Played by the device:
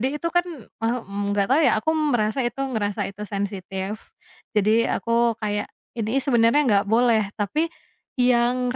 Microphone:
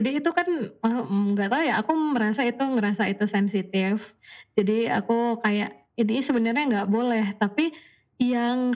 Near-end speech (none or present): none